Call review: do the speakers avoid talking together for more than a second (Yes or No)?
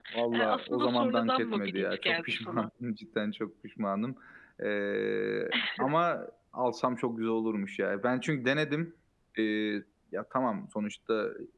No